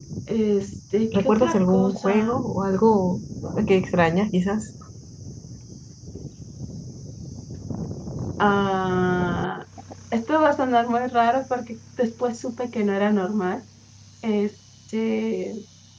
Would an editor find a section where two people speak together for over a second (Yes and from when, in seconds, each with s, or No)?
Yes, from 1.1 s